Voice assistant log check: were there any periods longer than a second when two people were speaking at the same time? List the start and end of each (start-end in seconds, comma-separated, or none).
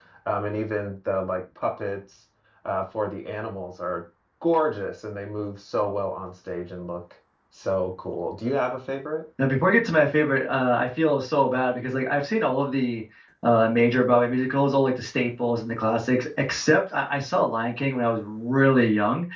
none